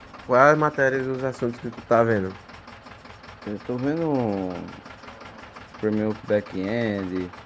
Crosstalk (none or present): none